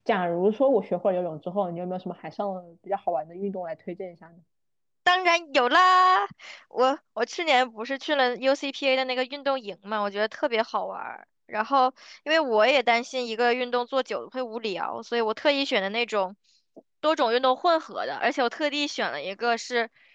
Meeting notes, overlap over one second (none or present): none